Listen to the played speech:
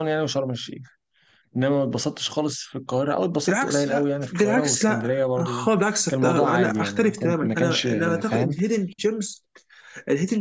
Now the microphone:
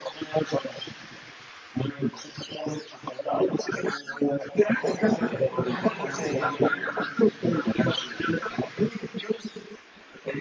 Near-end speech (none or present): present